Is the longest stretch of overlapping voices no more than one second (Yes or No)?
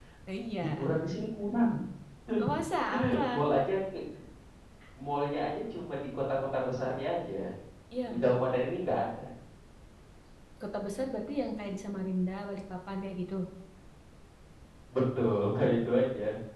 Yes